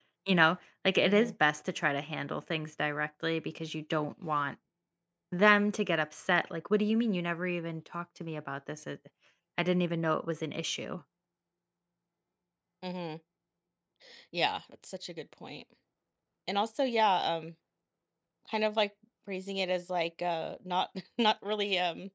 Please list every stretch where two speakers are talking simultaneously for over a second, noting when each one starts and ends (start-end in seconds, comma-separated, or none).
none